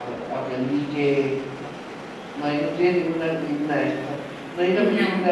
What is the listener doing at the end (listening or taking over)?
listening